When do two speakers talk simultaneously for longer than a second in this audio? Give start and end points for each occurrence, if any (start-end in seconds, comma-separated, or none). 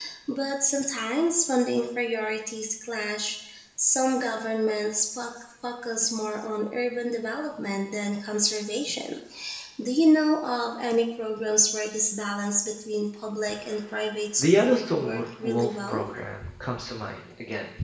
14.4-16.0